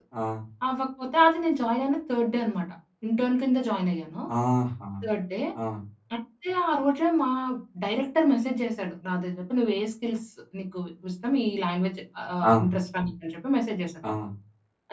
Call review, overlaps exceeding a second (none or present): none